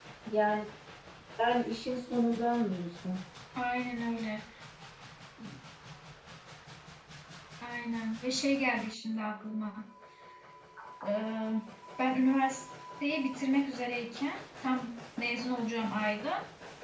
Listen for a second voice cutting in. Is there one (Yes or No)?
No